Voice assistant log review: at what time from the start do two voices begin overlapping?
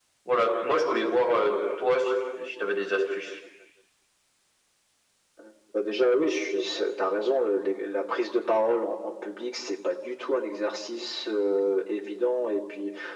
none

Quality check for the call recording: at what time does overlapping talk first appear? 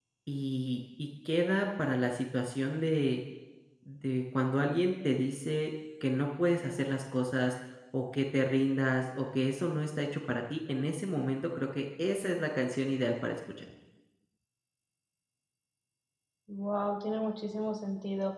none

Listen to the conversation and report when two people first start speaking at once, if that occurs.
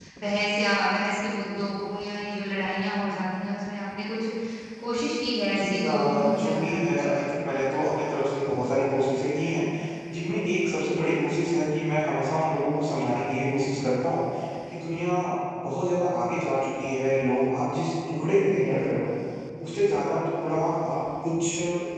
5.5 s

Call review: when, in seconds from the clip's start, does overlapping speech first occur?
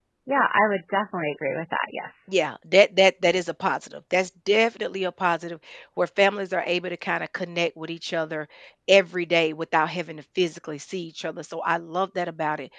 none

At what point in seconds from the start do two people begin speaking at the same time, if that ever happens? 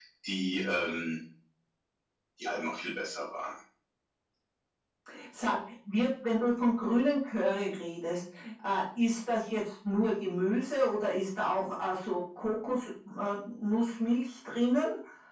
none

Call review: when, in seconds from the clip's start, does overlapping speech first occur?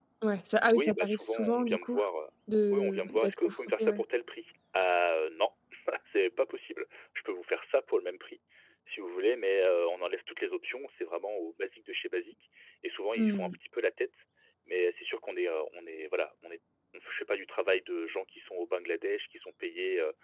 0.7 s

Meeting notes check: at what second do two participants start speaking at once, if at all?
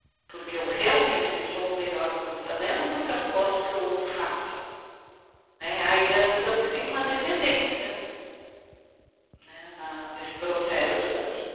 6.1 s

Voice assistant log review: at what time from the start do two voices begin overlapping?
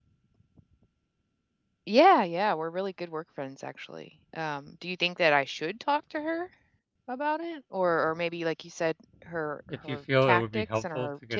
9.7 s

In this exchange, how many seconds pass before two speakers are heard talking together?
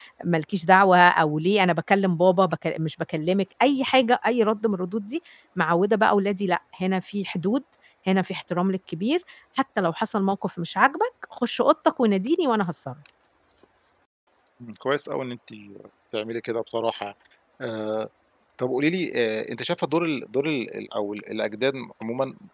none

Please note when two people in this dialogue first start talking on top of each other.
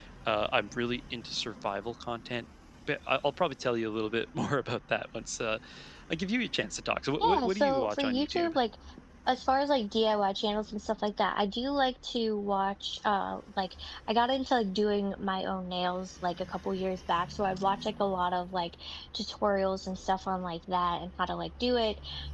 7.2 s

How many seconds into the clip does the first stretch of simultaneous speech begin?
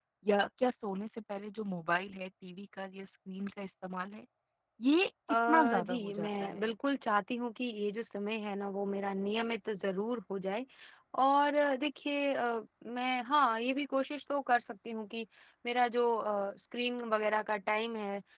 5.5 s

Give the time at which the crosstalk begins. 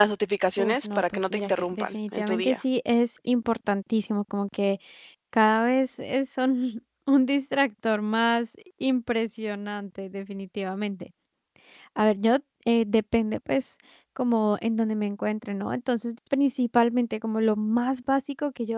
0.6 s

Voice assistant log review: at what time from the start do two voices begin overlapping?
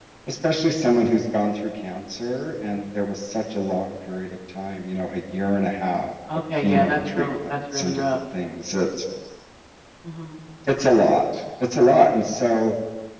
6.6 s

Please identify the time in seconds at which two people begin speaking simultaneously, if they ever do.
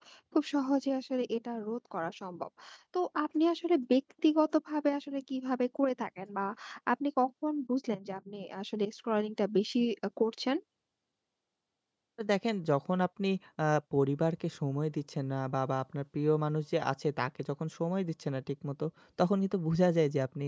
none

